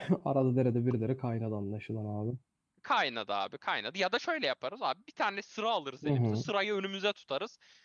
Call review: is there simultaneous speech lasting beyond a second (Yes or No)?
No